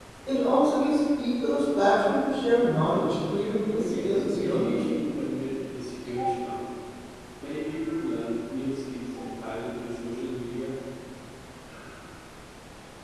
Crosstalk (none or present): present